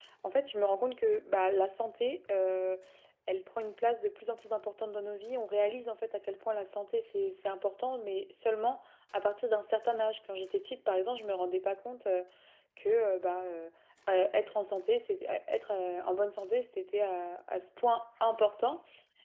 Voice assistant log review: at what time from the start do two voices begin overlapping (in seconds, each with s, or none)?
none